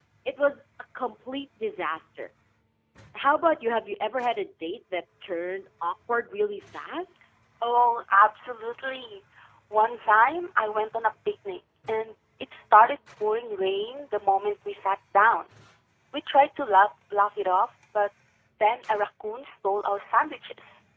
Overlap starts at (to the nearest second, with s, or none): none